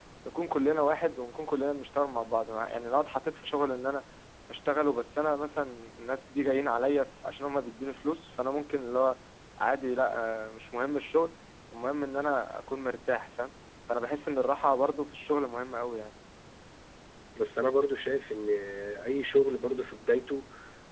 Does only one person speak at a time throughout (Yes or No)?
Yes